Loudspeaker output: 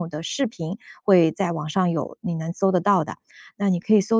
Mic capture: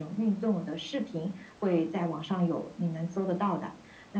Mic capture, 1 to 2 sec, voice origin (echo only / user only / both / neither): echo only